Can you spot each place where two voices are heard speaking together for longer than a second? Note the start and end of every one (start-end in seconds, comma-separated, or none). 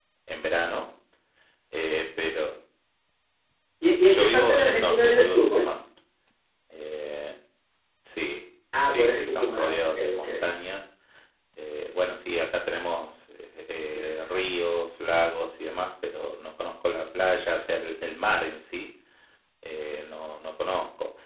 4.1-5.7, 8.9-10.3